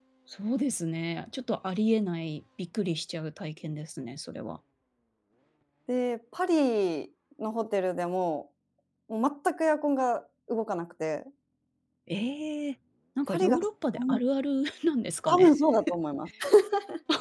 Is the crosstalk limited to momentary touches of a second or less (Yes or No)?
Yes